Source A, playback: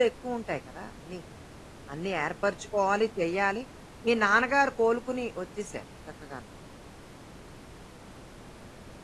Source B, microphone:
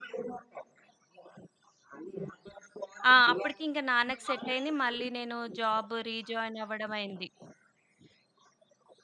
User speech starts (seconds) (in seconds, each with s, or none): 3.1 s